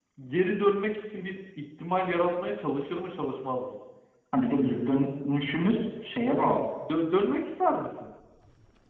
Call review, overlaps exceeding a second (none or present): none